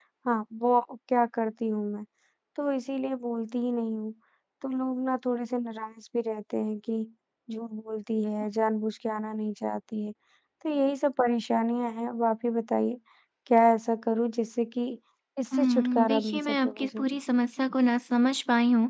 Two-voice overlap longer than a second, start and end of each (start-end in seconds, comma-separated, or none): 15.5-17.0